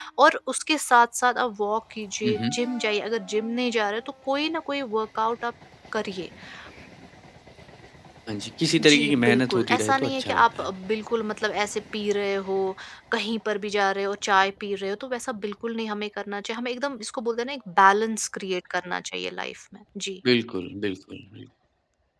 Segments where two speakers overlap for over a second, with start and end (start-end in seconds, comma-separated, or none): 8.8-10.7